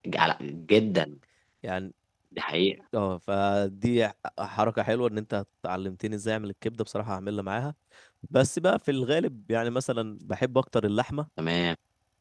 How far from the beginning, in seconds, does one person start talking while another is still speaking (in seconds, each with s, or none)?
none